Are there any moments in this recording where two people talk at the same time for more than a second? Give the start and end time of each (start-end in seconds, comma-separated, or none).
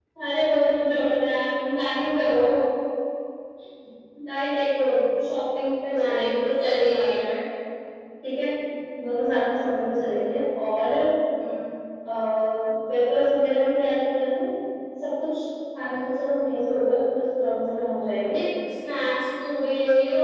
5.9-7.3